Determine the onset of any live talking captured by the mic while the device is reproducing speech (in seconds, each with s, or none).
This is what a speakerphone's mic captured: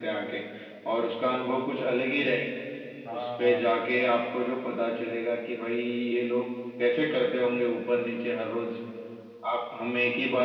3.1 s